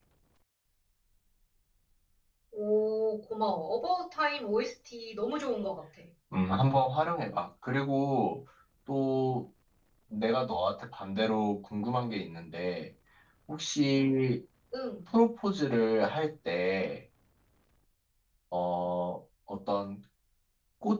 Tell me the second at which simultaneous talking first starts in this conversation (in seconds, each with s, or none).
none